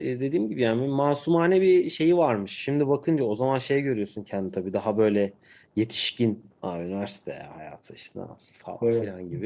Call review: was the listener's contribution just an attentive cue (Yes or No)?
Yes